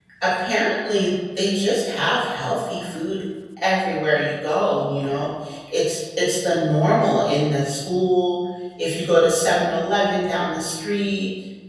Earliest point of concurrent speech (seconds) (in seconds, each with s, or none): none